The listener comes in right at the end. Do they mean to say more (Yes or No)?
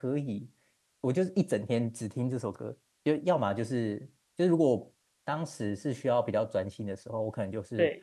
No